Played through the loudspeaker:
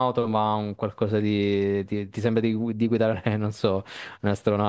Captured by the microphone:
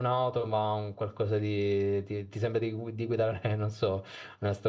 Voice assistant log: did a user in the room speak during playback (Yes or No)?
No